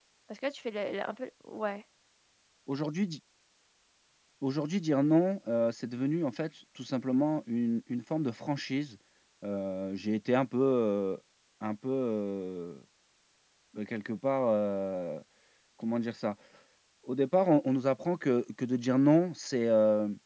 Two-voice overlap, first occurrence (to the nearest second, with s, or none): none